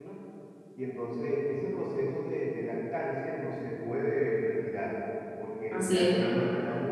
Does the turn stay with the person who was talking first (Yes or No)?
Yes